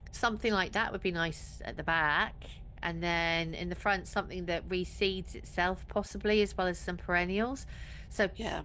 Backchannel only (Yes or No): Yes